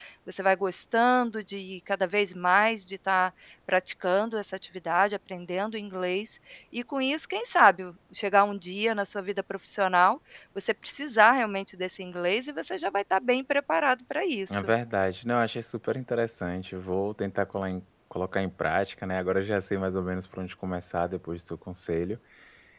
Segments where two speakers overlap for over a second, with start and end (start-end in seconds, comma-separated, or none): none